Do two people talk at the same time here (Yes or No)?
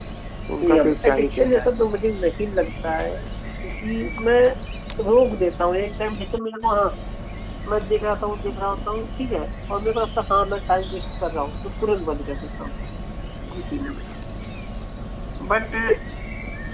Yes